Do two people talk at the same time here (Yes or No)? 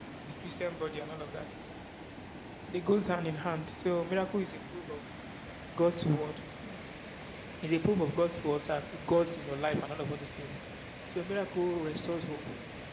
No